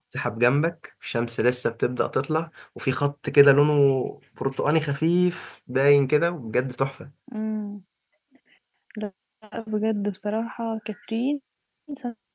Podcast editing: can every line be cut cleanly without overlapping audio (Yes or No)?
Yes